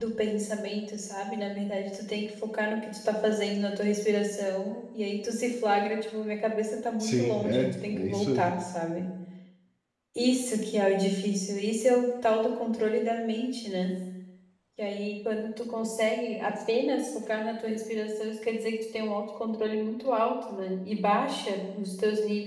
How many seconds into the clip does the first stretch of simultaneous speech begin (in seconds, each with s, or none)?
7.0 s